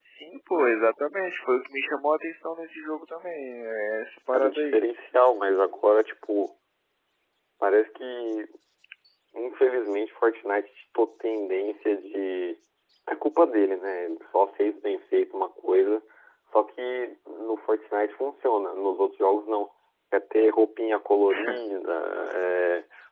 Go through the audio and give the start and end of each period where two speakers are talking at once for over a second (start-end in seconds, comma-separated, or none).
none